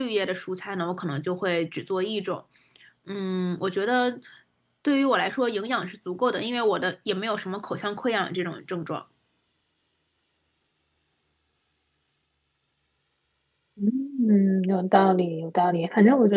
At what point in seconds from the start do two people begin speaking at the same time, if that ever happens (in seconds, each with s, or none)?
none